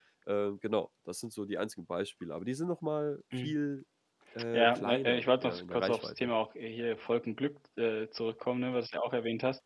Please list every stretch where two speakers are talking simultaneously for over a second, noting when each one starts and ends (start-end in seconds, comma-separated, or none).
4.5-6.3